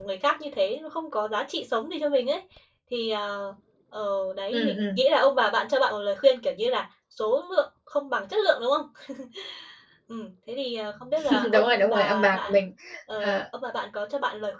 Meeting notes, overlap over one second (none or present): present